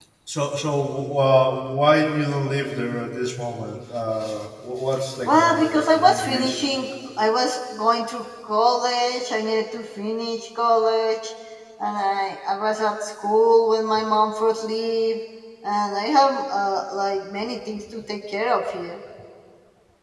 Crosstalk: present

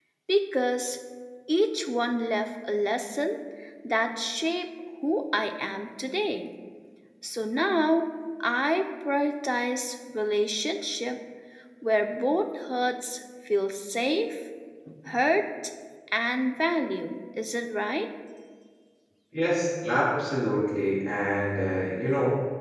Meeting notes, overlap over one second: none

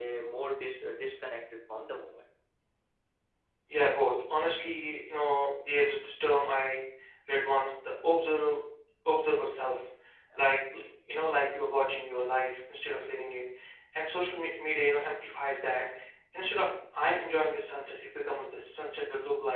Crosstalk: none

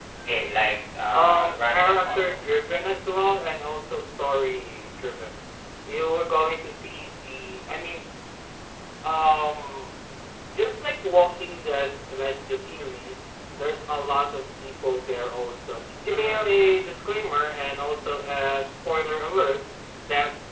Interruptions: present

